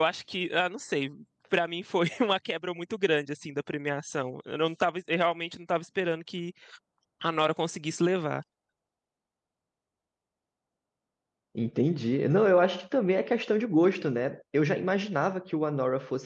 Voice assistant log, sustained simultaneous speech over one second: none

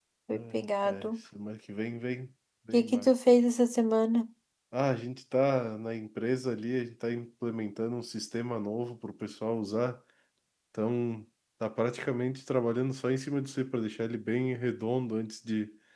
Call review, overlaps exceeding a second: none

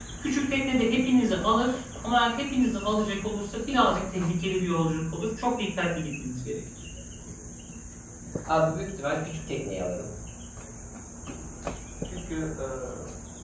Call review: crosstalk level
none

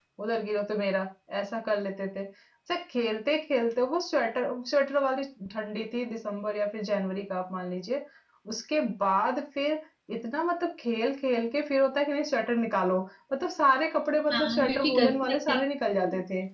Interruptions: present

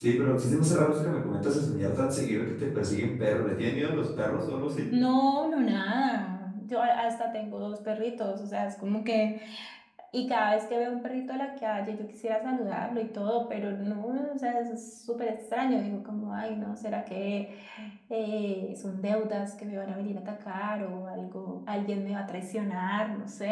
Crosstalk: none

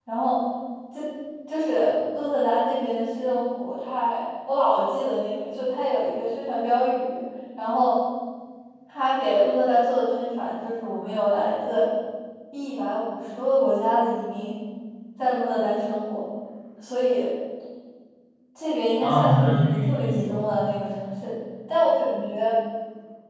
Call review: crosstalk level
present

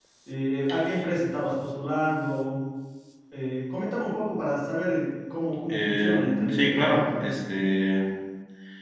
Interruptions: present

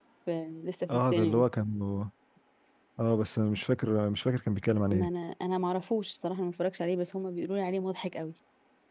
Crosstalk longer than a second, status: none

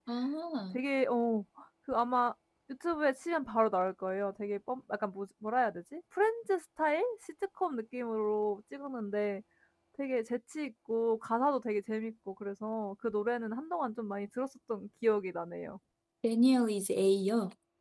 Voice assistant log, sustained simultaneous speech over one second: none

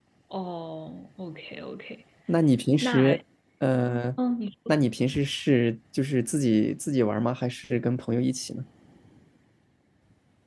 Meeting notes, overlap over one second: none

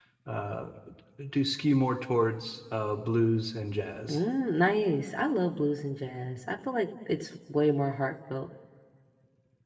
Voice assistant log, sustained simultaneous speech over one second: none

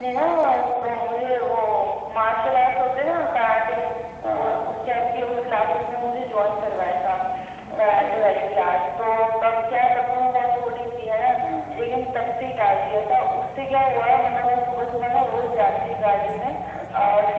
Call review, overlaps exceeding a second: none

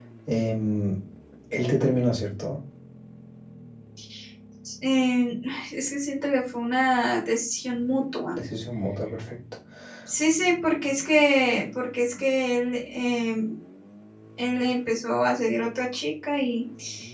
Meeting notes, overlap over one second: none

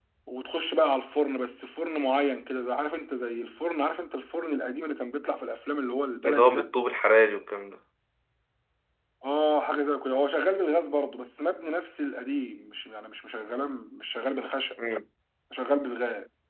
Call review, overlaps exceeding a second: none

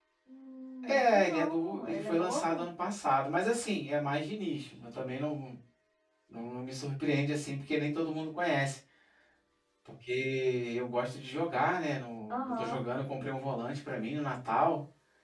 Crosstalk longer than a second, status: present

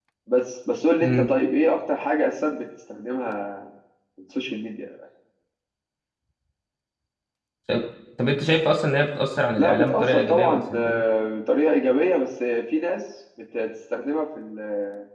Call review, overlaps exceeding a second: present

